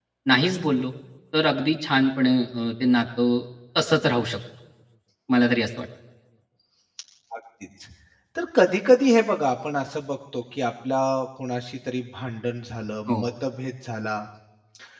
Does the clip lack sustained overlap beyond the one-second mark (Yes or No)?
Yes